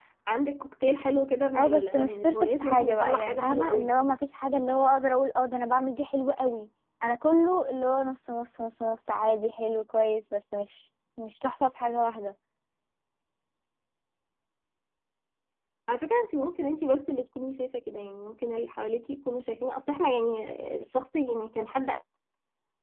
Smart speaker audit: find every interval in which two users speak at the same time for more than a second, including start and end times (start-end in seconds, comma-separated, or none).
1.6-3.9